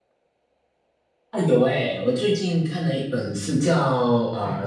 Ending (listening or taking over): listening